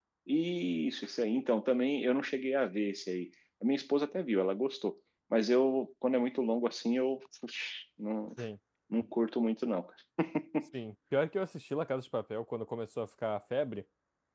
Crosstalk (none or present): none